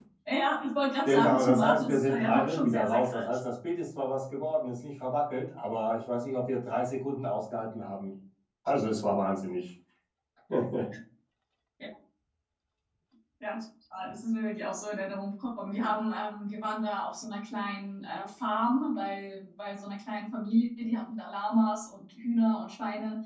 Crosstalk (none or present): present